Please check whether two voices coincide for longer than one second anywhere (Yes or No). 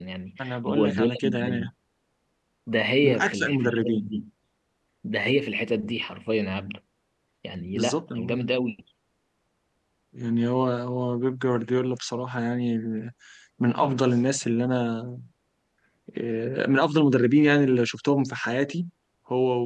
Yes